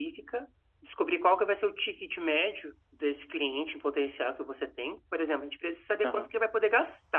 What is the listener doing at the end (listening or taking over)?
listening